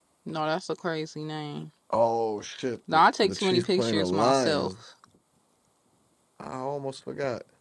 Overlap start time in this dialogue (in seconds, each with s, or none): 2.9 s